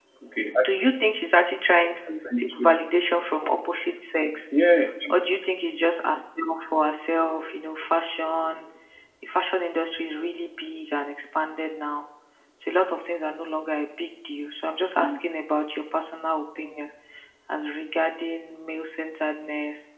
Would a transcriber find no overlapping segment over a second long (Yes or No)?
Yes